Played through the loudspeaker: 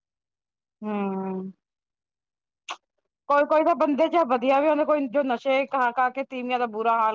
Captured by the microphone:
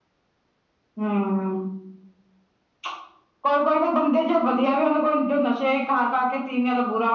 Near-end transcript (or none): none